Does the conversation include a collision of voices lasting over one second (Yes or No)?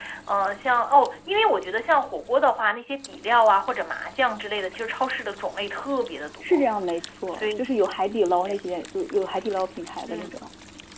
No